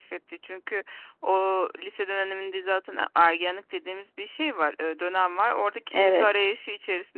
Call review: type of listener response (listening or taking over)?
listening